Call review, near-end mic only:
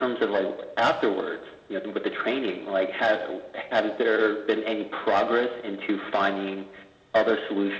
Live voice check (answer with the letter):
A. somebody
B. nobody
B